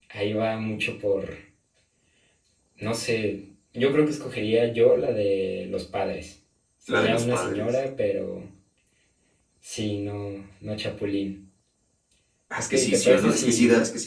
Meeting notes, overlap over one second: present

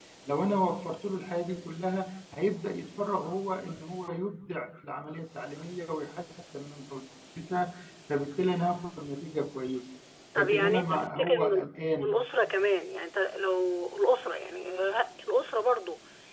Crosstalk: present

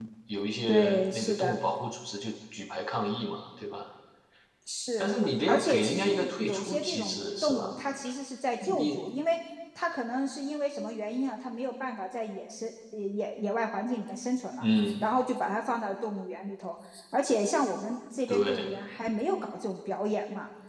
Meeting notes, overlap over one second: present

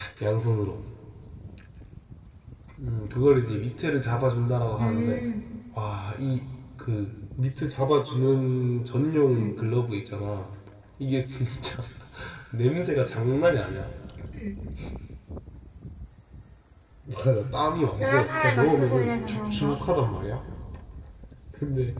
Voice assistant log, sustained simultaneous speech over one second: present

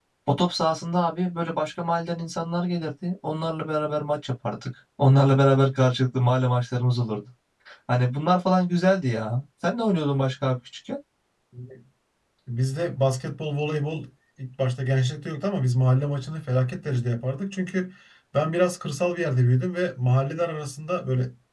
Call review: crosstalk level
none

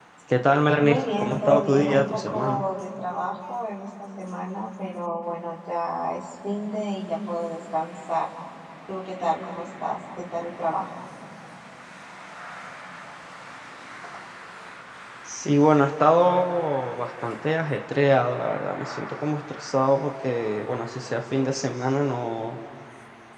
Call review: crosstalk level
present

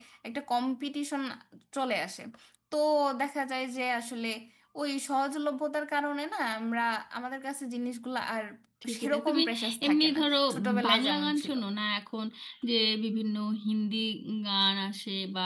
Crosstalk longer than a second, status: present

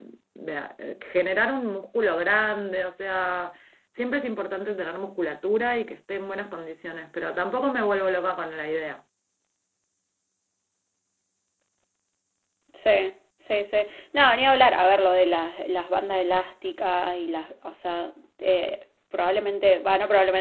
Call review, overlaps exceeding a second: none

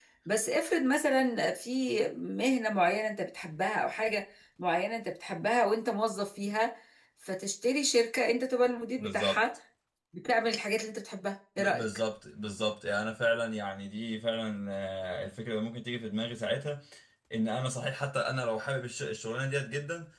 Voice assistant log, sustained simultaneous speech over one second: none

